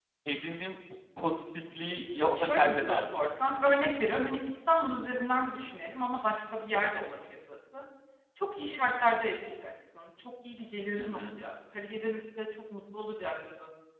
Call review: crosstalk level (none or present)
present